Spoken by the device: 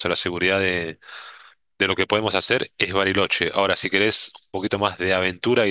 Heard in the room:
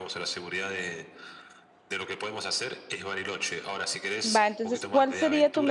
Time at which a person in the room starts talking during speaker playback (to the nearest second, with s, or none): 4 s